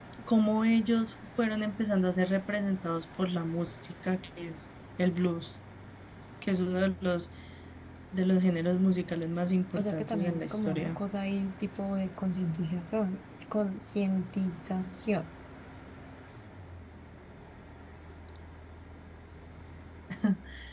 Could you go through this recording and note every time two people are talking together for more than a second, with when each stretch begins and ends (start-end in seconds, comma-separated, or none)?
9.8-11.0